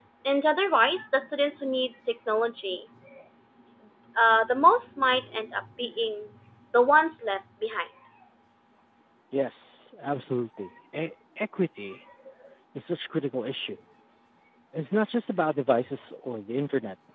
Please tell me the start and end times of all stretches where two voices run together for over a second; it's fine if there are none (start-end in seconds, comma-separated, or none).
none